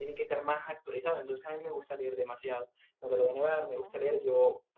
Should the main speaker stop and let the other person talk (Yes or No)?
No